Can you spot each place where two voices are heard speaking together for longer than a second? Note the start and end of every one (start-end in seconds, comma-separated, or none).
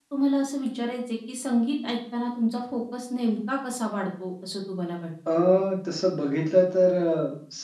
none